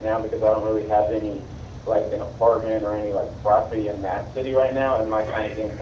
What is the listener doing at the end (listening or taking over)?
listening